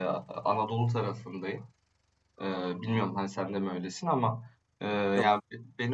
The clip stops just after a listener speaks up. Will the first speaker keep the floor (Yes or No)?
Yes